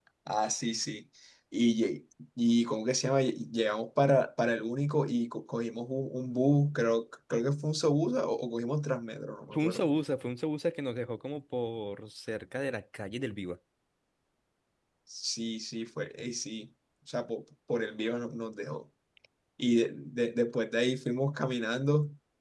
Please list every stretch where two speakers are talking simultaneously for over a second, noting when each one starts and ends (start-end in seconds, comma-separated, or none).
none